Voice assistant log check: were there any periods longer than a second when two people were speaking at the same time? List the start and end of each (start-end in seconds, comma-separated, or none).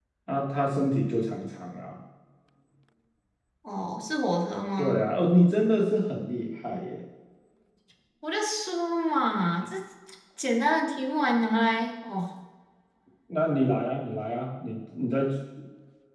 none